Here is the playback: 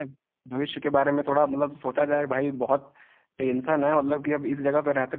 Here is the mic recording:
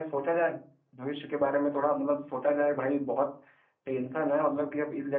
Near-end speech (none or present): none